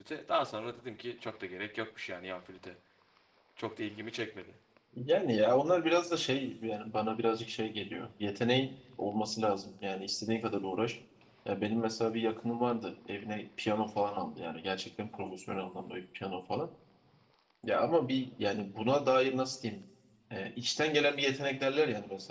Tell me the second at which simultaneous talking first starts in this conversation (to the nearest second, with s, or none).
none